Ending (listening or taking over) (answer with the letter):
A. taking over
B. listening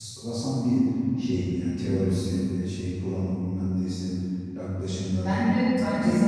A